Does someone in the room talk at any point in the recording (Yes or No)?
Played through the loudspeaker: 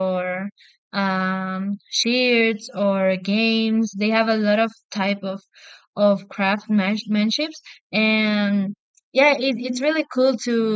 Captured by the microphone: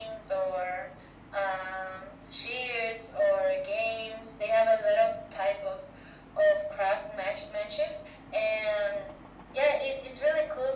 No